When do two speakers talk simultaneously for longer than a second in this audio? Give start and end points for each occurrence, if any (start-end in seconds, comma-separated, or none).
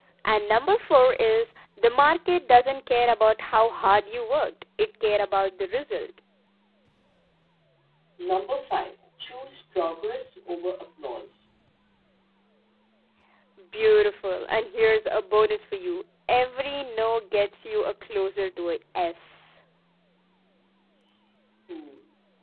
none